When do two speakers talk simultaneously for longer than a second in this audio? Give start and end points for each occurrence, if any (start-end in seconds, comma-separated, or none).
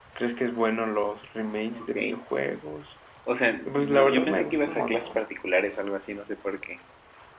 3.6-5.2